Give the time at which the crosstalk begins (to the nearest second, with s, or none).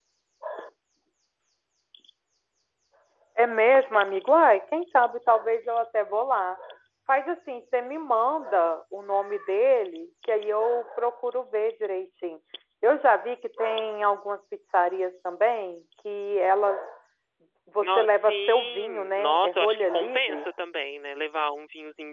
18 s